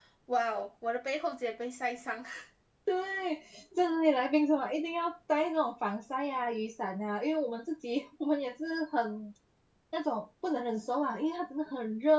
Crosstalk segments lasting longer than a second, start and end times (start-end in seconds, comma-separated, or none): none